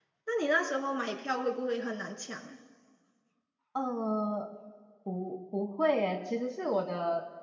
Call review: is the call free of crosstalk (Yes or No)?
Yes